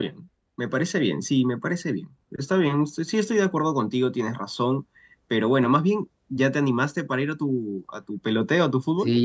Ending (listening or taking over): taking over